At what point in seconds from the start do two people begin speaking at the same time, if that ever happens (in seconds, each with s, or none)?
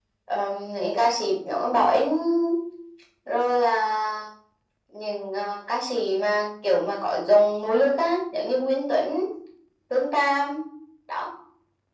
none